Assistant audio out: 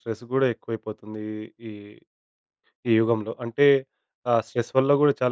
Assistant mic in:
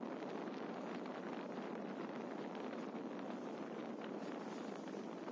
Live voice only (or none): none